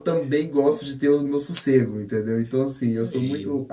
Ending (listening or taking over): listening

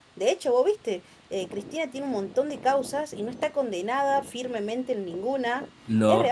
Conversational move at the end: listening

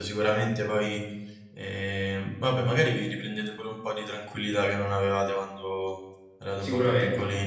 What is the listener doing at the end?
taking over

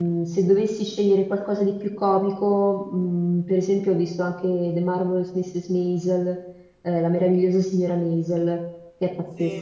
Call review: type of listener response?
taking over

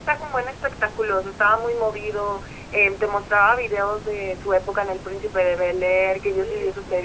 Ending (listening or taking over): listening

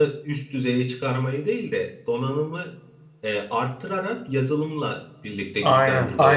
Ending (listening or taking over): taking over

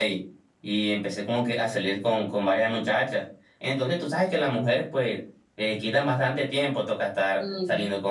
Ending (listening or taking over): listening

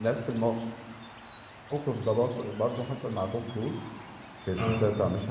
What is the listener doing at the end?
listening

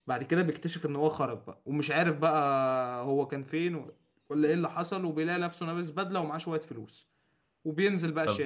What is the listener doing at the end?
taking over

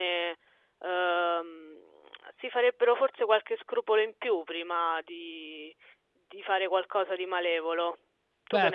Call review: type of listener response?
taking over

